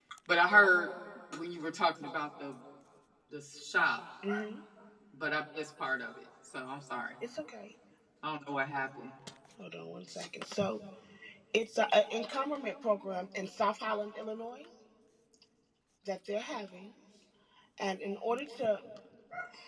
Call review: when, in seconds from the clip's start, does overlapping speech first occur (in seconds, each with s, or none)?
none